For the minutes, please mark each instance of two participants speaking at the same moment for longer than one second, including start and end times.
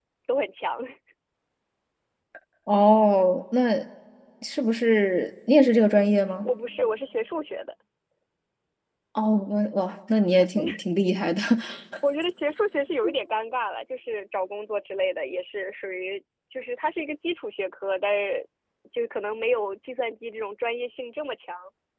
none

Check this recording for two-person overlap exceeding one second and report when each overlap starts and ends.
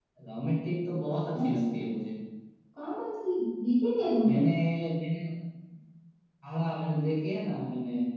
none

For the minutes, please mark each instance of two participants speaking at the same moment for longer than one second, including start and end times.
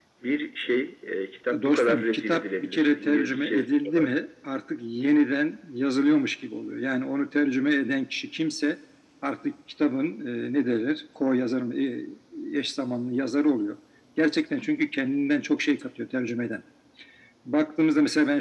1.6-4.1

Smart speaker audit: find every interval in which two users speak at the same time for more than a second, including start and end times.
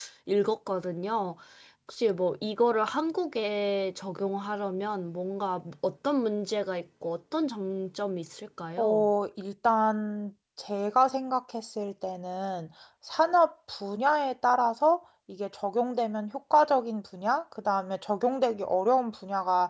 none

